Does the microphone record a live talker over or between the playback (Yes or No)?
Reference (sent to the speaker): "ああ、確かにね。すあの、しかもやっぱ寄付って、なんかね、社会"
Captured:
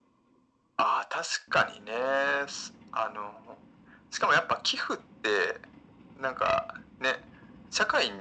No